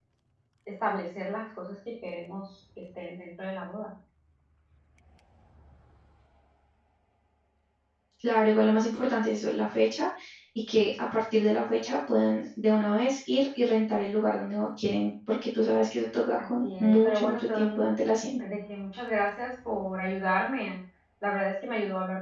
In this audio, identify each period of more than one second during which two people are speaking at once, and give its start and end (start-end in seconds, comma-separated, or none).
16.4-17.8